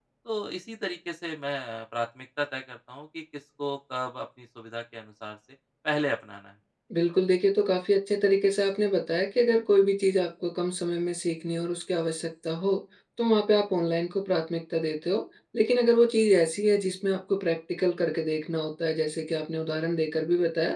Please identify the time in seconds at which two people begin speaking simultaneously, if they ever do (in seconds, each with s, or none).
none